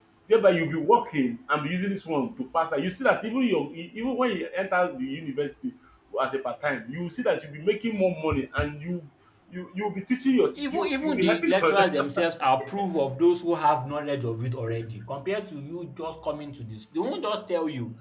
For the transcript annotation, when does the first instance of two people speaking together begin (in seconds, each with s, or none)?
10.6 s